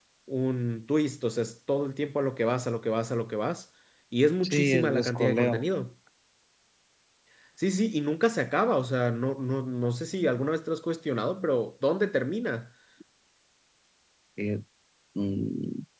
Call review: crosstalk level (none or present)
present